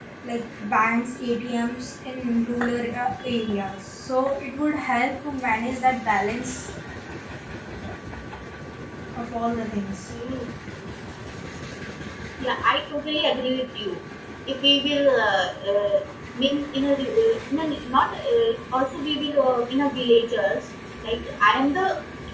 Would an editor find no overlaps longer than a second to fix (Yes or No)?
Yes